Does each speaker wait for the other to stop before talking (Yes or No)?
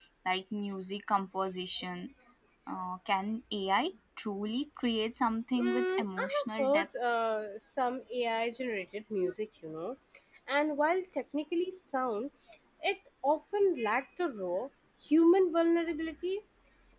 No